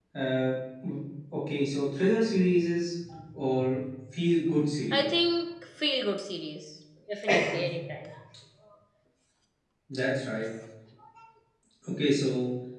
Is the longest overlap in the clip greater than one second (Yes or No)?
No